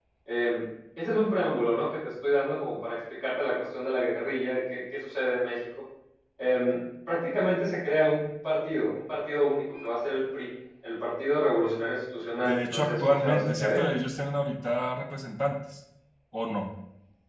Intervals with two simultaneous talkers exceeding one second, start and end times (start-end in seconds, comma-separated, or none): 12.4-13.8